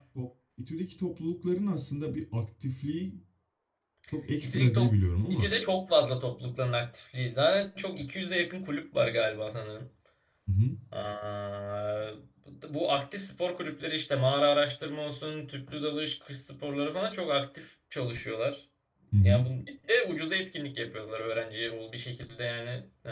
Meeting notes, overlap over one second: none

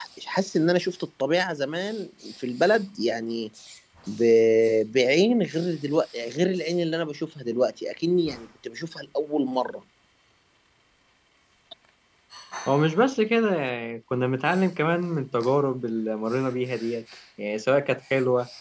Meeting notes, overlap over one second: none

